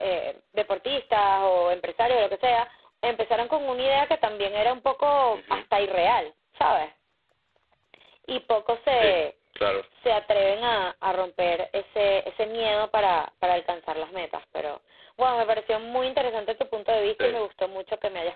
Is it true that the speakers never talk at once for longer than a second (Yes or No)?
Yes